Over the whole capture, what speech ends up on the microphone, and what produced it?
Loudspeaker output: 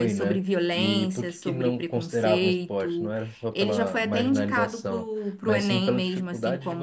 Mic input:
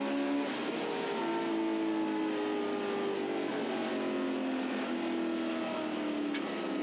neither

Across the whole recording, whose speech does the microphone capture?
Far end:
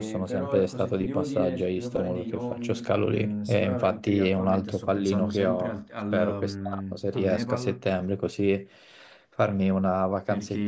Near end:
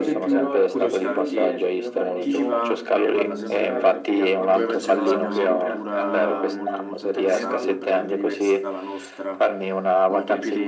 both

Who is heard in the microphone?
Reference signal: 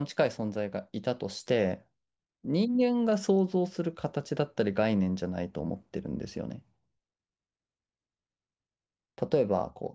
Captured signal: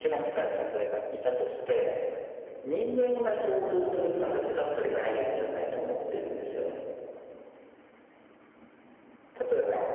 echo only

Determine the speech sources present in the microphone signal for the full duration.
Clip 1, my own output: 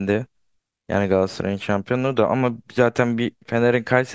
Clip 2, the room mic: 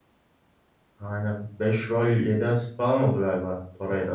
user only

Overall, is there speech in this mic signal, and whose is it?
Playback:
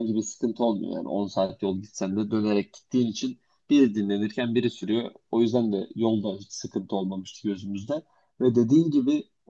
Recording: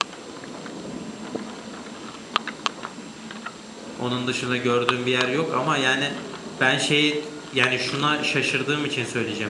user only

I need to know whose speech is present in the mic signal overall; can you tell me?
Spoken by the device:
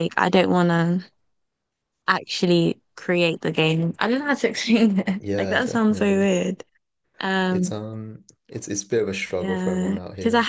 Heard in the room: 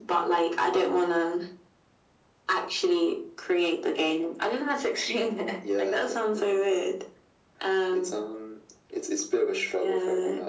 echo only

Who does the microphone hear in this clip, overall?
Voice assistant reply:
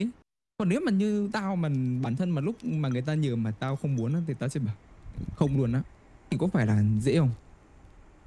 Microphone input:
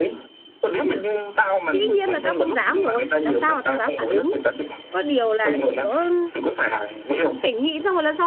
both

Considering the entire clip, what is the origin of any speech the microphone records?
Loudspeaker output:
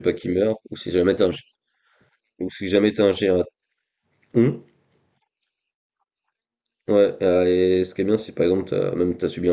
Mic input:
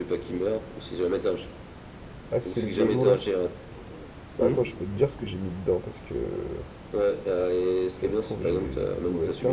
both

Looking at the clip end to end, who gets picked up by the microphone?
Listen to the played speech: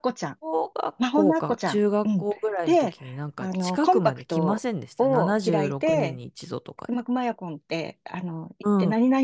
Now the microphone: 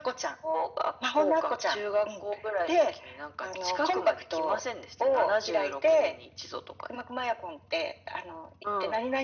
echo only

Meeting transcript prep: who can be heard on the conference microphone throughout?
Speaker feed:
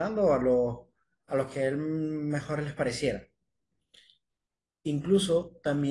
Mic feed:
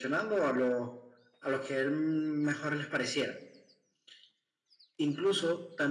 echo only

